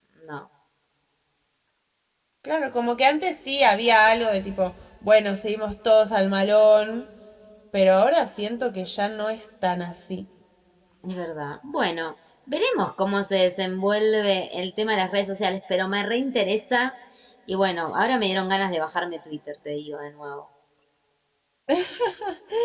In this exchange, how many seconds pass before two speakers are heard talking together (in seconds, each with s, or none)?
none